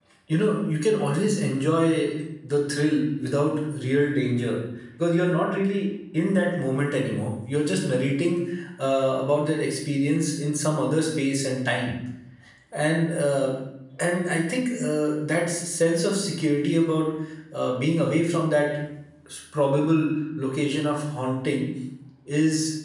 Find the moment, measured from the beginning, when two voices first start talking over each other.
none

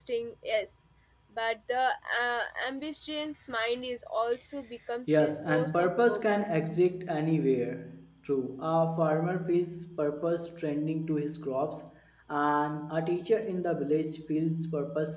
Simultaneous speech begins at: 5.1 s

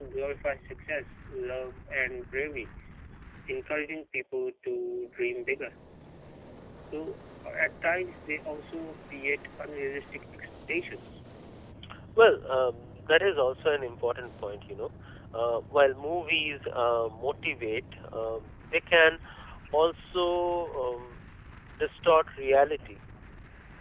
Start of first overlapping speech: none

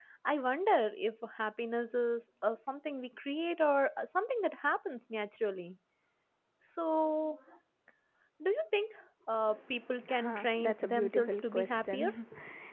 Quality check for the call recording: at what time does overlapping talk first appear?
10.1 s

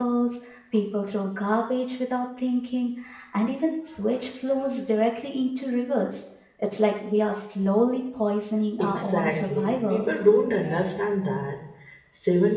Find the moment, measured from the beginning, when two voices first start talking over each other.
8.8 s

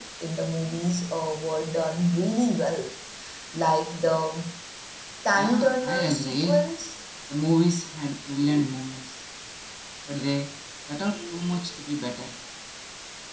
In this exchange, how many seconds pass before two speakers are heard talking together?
5.3 s

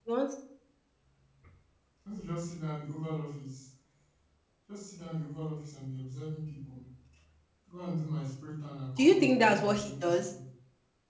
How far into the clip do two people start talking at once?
9.0 s

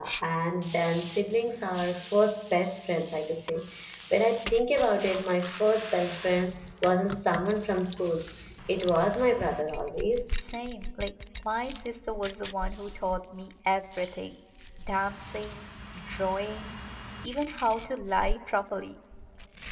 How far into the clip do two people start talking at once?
none

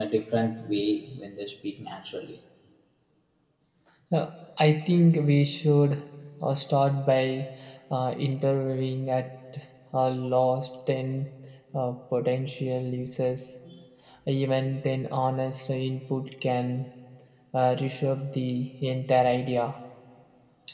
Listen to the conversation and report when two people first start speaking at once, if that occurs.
none

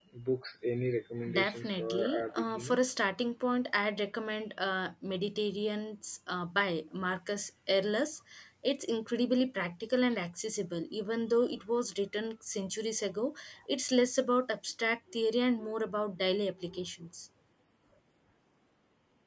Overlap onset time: 1.3 s

